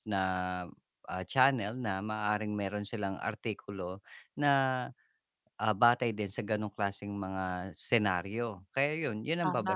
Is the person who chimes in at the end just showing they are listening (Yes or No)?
Yes